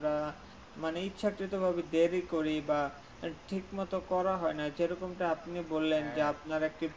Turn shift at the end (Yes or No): No